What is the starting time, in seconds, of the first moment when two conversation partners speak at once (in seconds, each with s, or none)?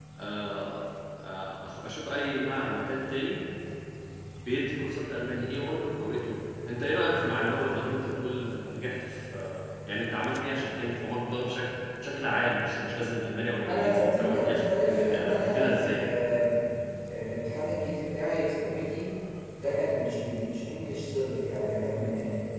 13.7 s